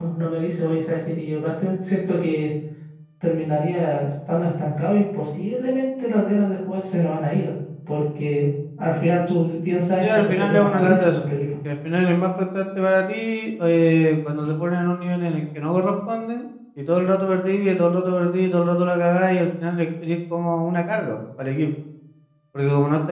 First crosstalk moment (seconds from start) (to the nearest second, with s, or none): 10 s